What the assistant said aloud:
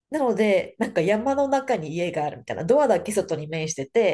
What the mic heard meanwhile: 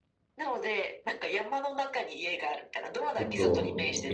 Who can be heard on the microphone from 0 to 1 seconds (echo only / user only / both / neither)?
echo only